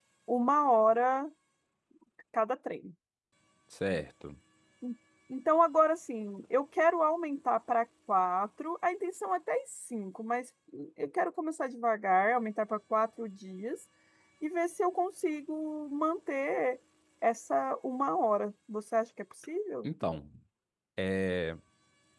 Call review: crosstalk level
none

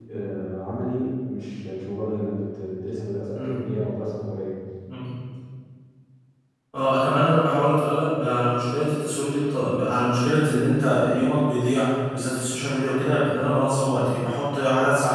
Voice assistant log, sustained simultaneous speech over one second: none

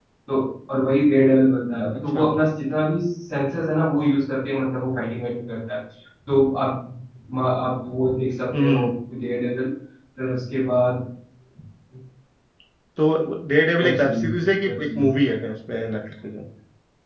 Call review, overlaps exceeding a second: present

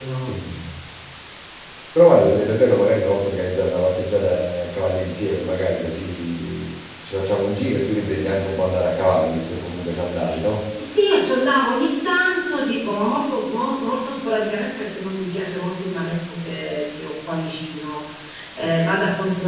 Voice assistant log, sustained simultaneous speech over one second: none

